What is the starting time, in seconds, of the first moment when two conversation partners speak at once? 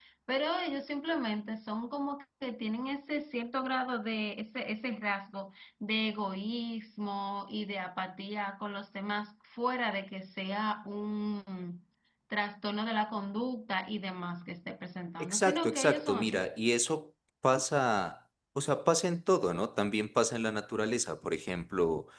15.2 s

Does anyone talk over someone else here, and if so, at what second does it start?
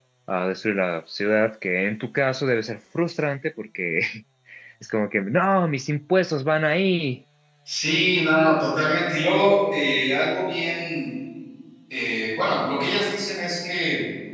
none

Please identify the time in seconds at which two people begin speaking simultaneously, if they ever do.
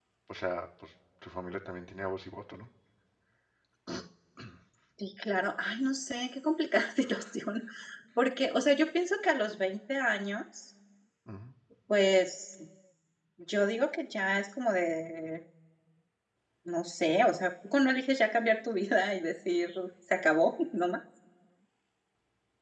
none

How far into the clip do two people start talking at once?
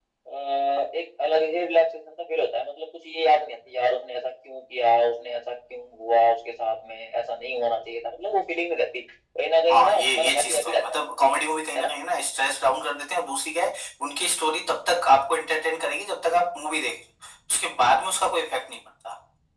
9.7 s

